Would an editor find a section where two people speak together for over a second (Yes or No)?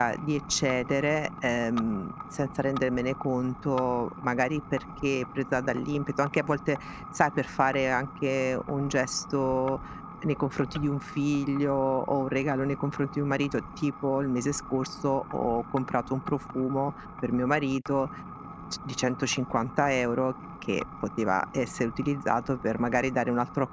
No